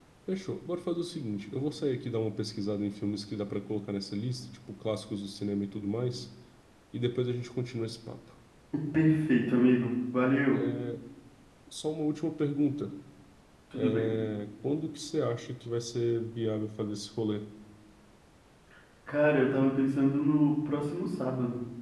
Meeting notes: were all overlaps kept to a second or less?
Yes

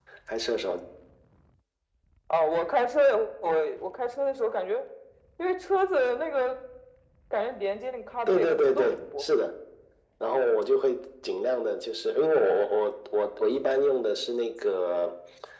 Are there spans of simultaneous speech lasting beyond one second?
Yes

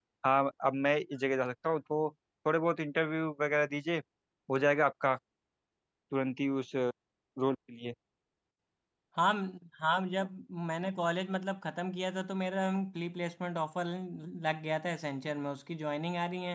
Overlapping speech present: No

